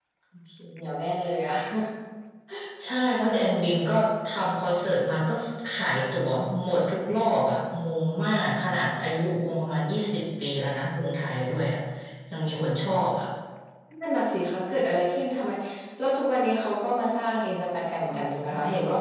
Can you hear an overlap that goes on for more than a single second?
No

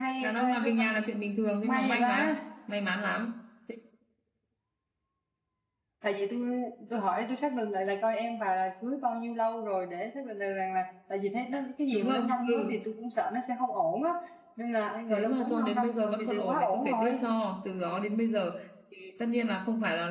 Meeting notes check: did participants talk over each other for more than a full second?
Yes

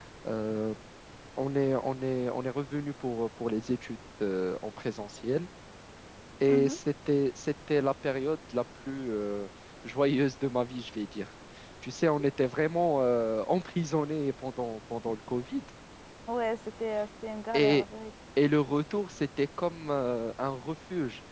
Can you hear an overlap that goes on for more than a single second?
No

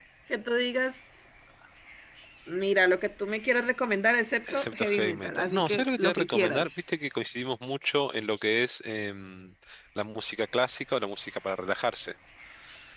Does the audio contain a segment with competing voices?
Yes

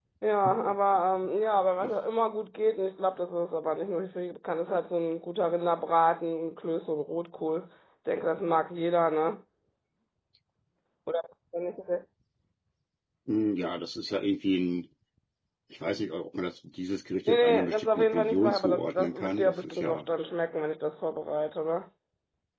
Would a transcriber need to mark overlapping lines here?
Yes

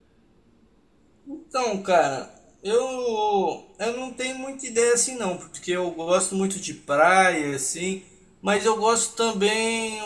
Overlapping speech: No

